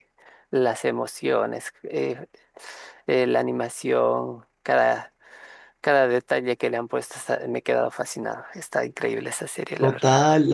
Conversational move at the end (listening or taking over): taking over